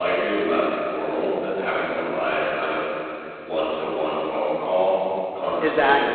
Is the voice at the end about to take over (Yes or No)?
No